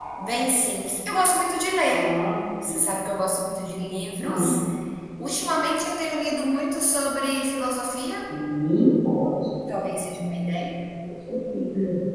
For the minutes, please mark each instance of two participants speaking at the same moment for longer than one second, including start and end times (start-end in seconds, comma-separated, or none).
none